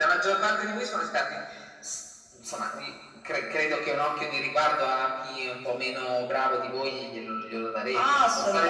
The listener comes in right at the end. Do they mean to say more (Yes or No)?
Yes